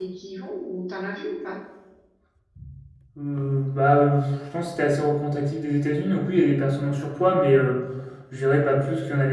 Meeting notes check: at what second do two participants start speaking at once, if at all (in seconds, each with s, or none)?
none